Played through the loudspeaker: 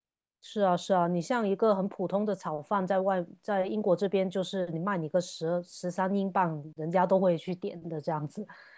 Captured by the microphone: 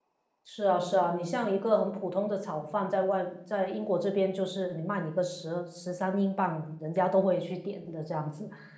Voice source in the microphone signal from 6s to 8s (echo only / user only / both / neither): echo only